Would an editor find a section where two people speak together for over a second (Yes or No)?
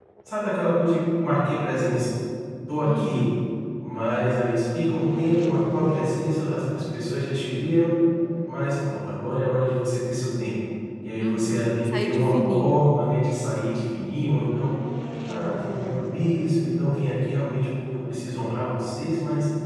Yes